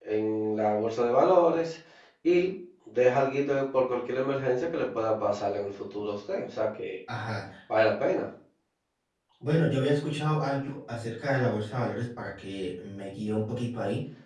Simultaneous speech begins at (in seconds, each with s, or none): none